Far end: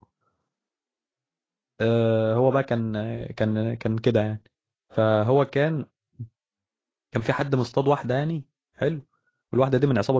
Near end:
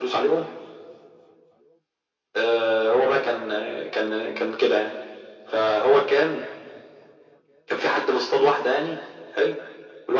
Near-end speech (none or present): none